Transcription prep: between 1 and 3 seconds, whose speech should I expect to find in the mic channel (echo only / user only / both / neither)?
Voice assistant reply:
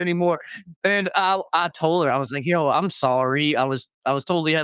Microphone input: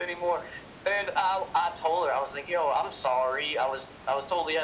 echo only